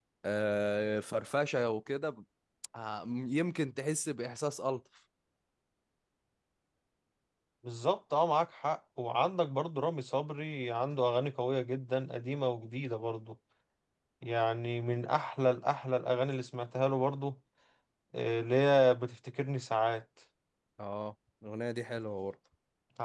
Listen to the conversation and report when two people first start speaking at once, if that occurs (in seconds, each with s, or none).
none